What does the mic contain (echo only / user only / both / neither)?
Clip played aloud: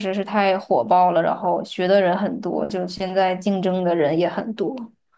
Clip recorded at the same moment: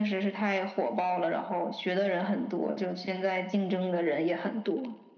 echo only